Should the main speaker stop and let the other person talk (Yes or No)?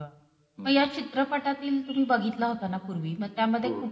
No